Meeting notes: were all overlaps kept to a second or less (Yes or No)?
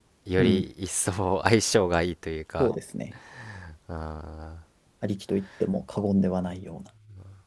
Yes